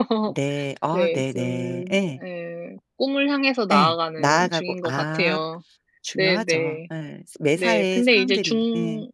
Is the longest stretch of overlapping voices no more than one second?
No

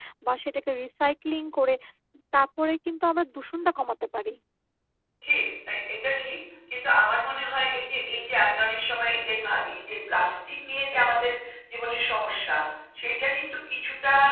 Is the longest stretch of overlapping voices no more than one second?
Yes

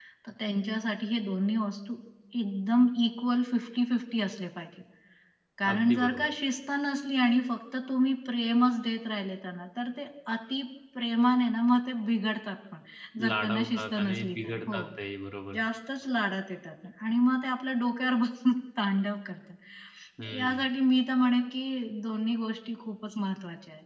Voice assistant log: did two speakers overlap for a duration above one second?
Yes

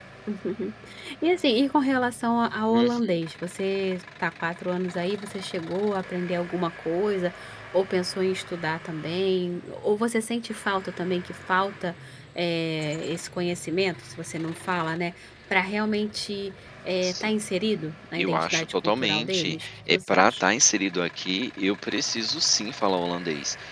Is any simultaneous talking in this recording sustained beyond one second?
Yes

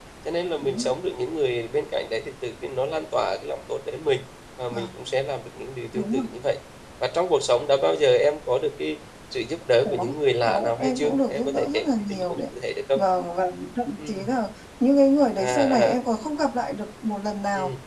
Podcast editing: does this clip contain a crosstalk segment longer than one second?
Yes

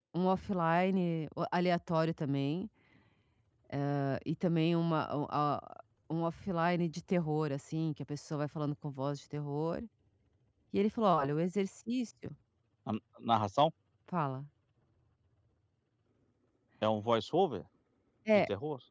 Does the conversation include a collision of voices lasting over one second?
No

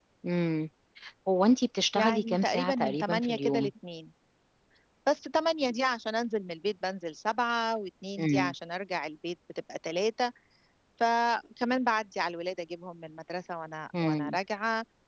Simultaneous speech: Yes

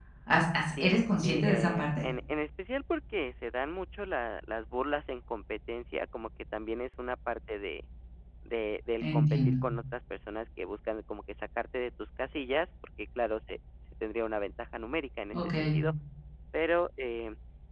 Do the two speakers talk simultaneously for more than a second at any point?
Yes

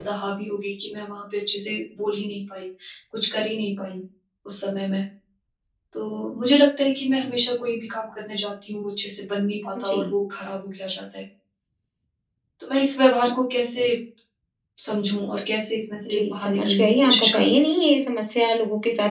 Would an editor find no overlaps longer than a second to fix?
No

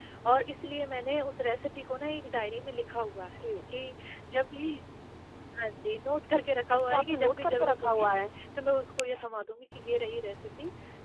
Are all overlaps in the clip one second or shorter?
No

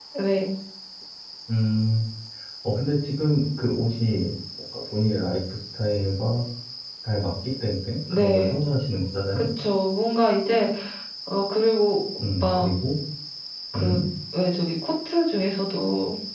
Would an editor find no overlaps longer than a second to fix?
Yes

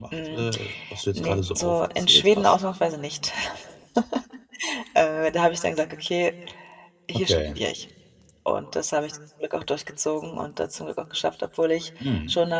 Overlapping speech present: Yes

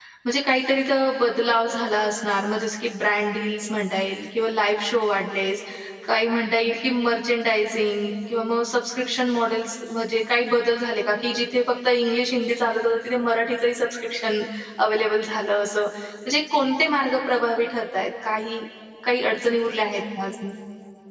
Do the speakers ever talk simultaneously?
No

